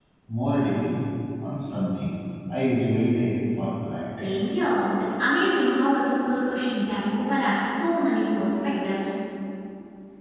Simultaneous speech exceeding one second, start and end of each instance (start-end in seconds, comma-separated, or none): none